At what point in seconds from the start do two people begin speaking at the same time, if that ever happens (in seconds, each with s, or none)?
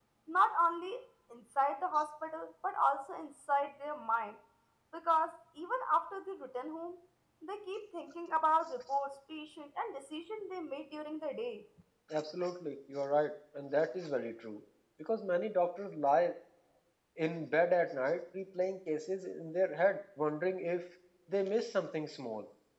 none